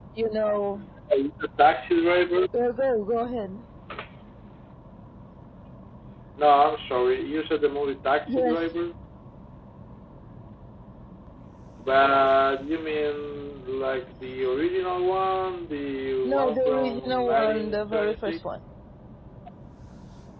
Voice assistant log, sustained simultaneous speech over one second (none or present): present